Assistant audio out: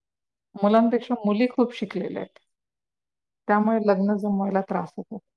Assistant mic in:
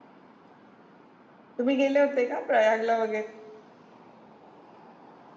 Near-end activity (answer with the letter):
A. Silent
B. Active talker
B